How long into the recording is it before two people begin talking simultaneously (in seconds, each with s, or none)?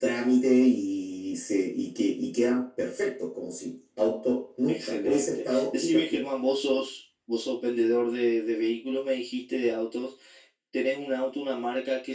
4.7 s